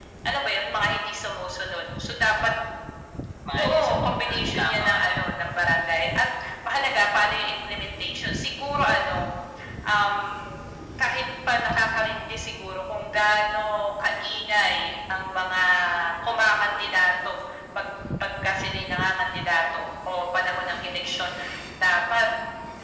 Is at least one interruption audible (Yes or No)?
Yes